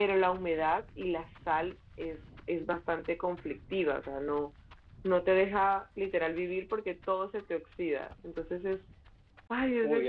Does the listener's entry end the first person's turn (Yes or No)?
Yes